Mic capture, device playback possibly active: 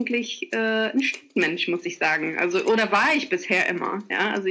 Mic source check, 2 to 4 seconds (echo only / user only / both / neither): echo only